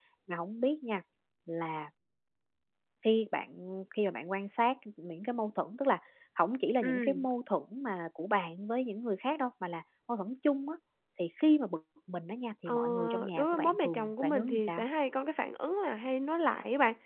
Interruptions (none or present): present